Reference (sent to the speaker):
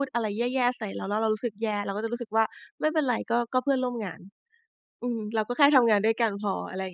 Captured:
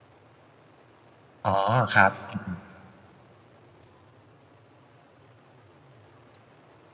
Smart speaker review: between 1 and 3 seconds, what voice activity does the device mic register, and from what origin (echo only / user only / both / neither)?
user only